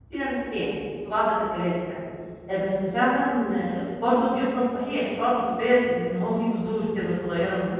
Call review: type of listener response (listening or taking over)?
taking over